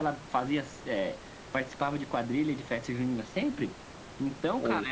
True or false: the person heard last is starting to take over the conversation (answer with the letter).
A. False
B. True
A